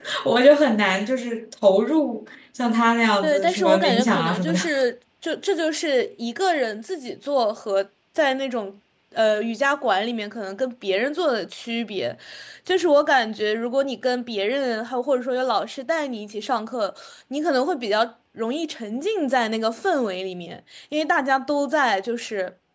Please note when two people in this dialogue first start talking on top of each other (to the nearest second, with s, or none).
3 s